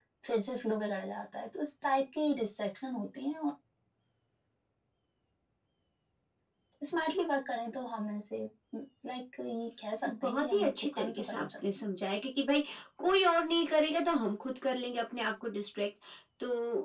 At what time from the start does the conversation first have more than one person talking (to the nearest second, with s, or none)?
10 s